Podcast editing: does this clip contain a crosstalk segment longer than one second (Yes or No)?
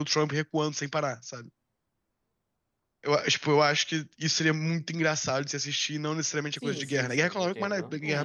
Yes